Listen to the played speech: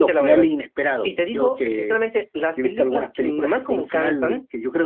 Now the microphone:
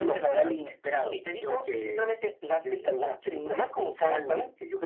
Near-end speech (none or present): none